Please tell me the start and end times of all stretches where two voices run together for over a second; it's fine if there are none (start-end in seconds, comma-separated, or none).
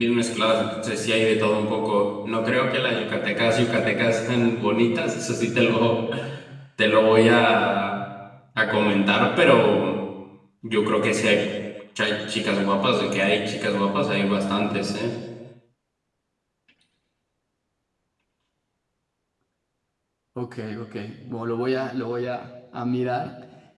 none